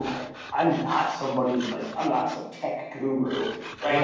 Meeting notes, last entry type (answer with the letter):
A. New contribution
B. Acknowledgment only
A